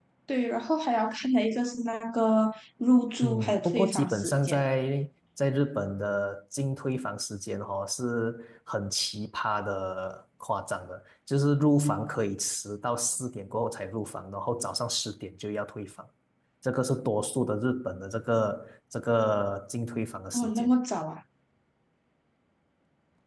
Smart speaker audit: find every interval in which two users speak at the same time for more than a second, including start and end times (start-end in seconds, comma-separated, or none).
3.2-4.7